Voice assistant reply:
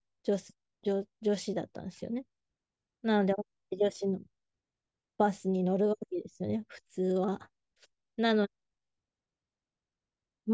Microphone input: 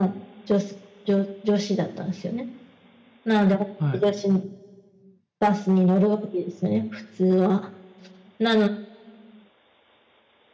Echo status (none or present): present